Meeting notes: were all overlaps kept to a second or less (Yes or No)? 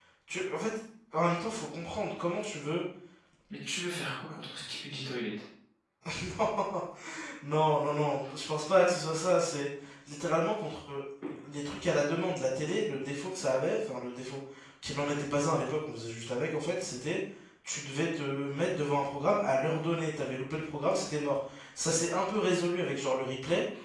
Yes